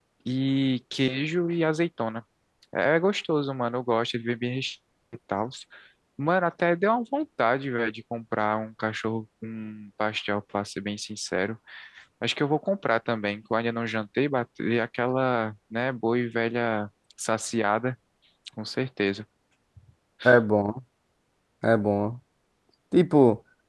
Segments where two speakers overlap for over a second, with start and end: none

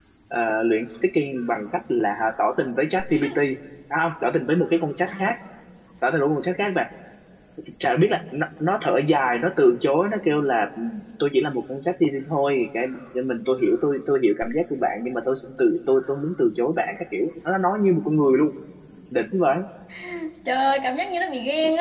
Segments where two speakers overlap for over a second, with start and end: none

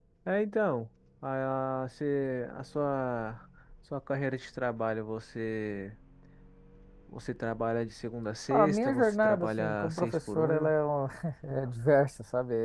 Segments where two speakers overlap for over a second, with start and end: 8.5-10.7

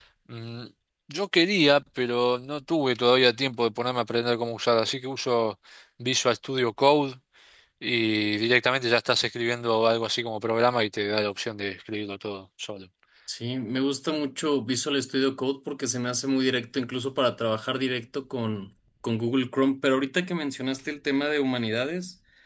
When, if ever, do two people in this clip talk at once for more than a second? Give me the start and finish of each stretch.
none

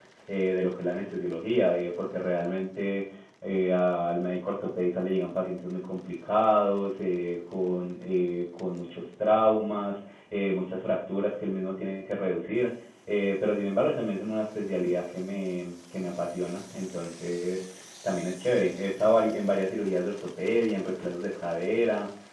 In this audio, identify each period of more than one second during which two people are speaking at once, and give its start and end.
none

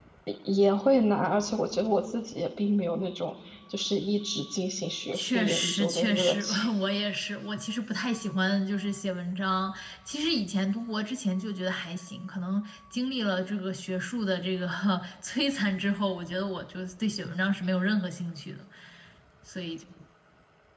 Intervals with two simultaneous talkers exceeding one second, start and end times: 5.1-6.7

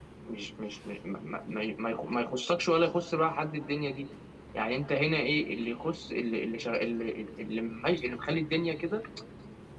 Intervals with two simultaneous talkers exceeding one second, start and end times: none

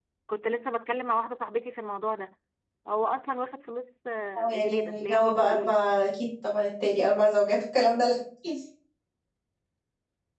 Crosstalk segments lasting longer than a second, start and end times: 4.4-5.8

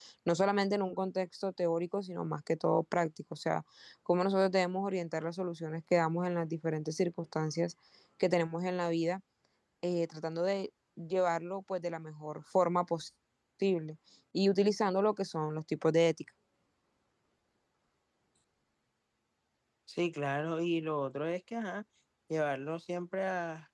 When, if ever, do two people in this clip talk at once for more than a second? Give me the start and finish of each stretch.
none

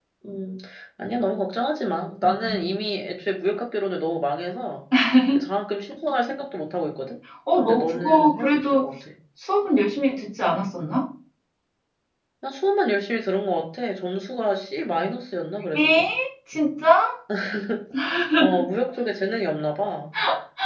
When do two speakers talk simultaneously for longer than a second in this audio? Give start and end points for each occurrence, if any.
7.5-8.9

